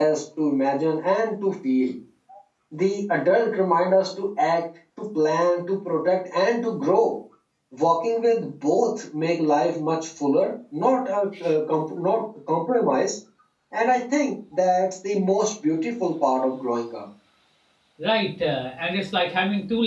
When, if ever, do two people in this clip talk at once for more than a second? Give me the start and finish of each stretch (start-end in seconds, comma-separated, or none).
none